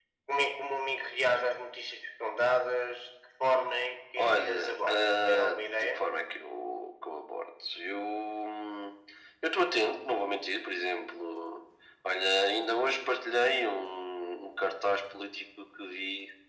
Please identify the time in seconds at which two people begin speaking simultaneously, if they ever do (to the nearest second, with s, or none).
4 s